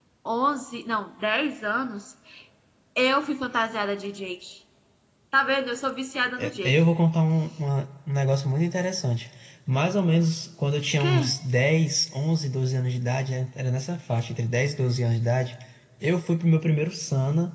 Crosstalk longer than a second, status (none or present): none